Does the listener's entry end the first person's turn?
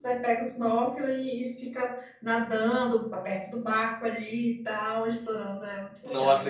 Yes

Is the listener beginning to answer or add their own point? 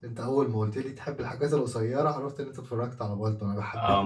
Yes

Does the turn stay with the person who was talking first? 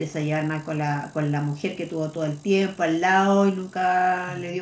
No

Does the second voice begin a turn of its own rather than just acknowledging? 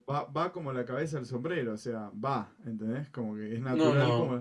Yes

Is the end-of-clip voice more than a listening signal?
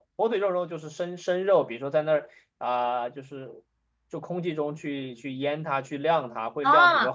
Yes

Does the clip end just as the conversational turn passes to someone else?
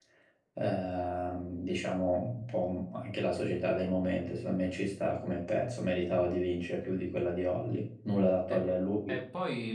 Yes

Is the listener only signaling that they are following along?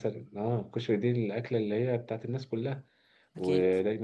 Yes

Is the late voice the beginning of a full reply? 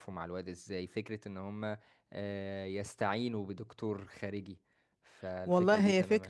Yes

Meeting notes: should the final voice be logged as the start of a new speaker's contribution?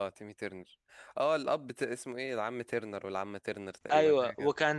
Yes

